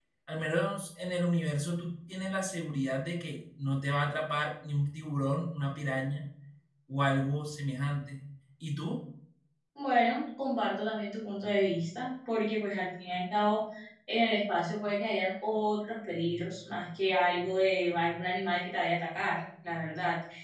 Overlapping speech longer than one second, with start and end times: none

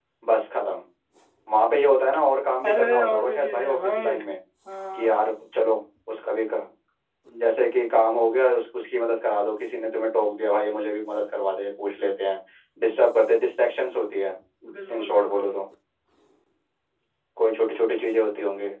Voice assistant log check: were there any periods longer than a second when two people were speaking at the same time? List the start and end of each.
2.7-4.2

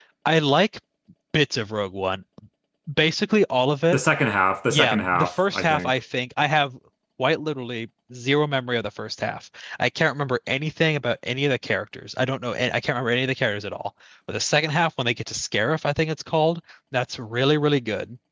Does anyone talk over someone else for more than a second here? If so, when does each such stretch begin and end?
4.7-5.9

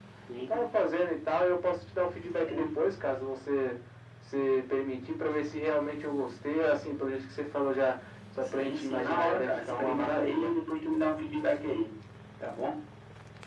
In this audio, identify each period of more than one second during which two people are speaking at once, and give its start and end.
8.4-10.5

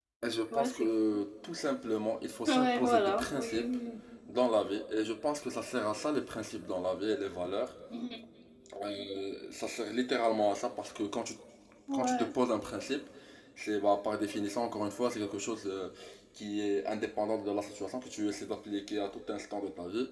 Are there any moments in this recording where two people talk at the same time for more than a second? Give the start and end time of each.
2.5-3.7

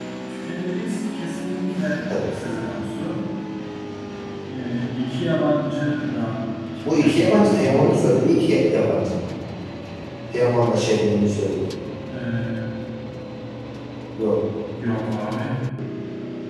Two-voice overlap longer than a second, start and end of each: 6.8-8.1

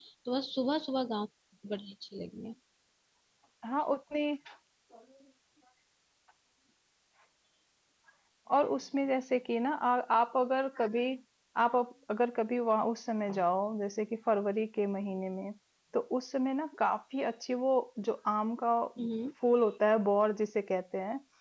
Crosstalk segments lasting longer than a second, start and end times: none

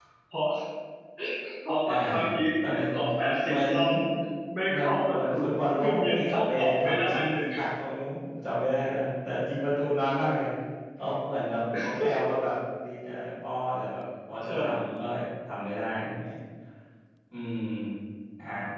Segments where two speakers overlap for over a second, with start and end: 4.7-7.4

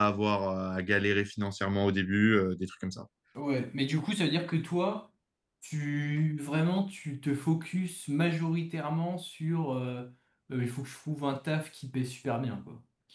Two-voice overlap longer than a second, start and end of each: none

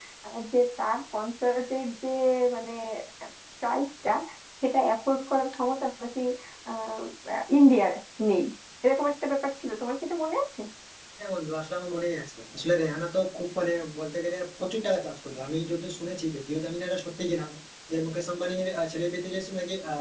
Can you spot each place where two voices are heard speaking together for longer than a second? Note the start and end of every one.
none

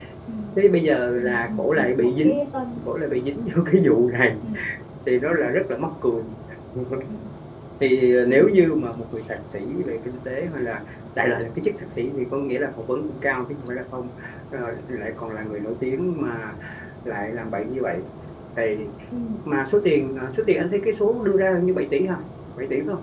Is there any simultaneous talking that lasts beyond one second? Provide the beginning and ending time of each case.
1.2-2.4

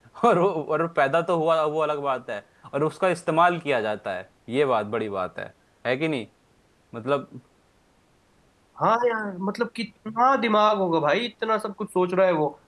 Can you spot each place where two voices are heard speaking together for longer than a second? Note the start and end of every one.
none

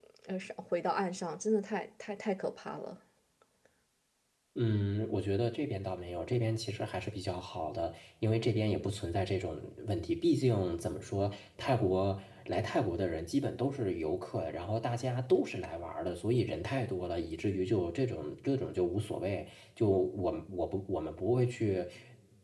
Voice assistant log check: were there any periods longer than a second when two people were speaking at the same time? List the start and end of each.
none

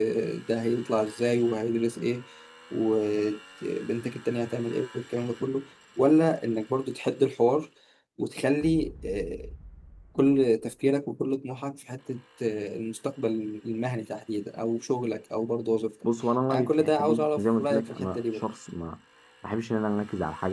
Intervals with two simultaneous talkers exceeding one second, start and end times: 16.5-18.4

